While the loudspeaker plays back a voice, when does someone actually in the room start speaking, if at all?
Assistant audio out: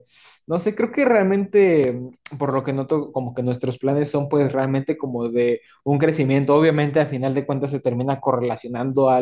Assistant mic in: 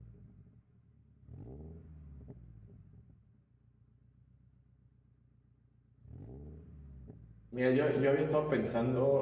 7.5 s

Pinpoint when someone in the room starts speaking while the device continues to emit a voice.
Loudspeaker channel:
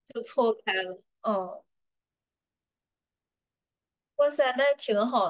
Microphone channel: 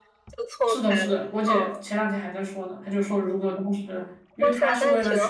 0.7 s

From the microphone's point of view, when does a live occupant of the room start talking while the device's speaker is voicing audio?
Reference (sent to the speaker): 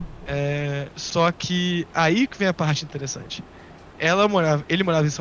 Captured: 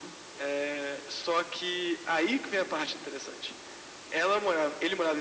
none

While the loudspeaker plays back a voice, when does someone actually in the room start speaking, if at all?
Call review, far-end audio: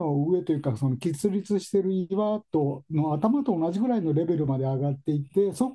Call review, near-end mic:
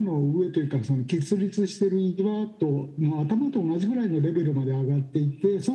none

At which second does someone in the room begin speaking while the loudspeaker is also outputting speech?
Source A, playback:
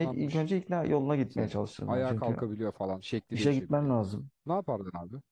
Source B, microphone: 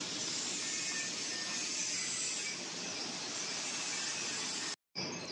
none

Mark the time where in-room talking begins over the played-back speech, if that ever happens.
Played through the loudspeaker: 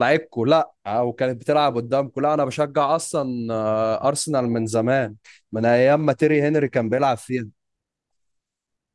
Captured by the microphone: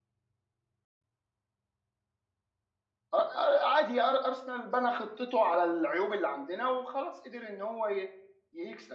3.2 s

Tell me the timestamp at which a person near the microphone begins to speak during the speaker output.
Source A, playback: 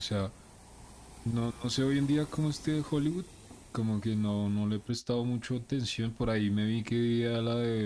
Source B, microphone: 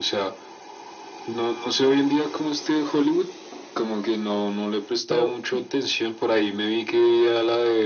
5.0 s

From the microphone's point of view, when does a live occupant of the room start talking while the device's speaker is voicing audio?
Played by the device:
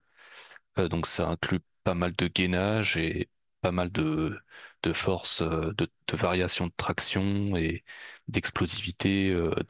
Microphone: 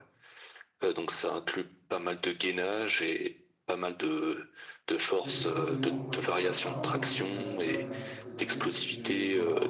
5.1 s

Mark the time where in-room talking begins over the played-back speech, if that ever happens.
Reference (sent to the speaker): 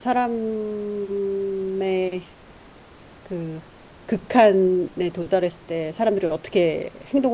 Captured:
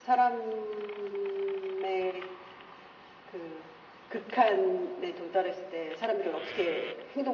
none

